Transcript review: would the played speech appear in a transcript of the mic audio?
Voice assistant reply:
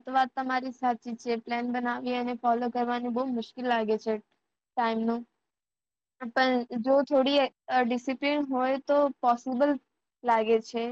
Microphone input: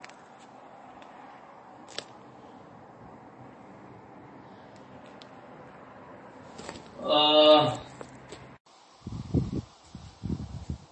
No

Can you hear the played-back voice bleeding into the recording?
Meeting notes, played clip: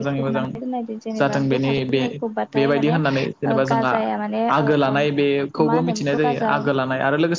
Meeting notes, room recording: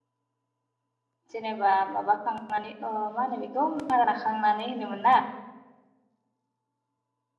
No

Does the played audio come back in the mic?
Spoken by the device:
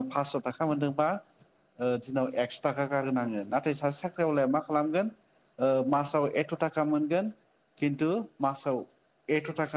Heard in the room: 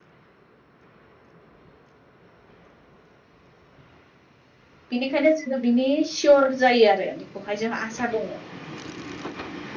No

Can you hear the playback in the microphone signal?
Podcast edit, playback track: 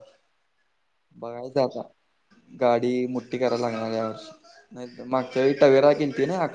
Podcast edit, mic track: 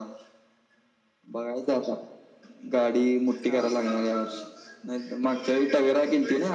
Yes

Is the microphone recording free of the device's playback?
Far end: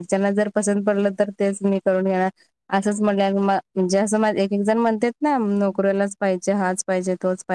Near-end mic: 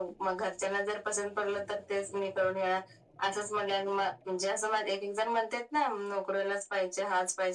No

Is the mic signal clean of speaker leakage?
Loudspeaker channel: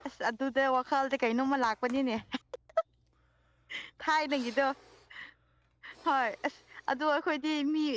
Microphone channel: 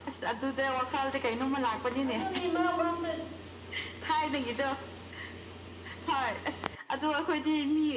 No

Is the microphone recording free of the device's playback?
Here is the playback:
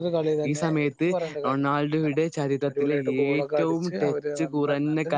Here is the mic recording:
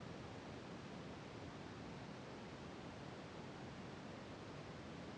Yes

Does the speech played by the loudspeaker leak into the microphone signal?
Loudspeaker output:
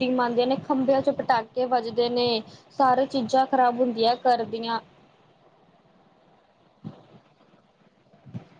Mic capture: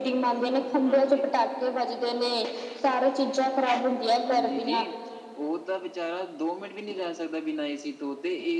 Yes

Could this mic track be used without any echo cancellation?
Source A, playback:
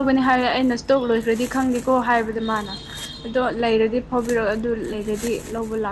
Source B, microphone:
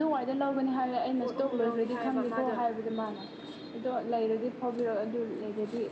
No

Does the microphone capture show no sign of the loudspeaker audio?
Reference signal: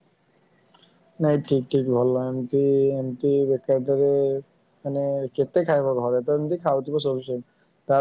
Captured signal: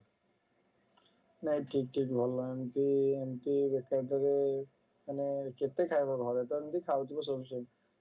No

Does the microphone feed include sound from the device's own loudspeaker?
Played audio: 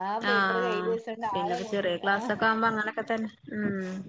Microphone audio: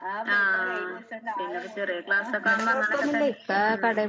Yes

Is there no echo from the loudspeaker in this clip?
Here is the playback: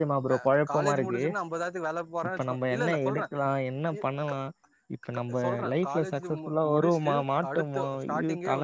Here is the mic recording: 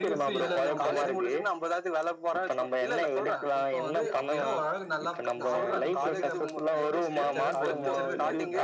No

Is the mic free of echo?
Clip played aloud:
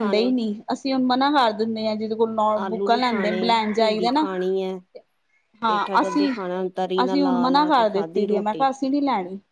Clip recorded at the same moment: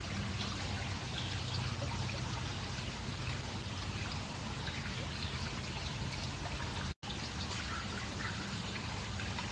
Yes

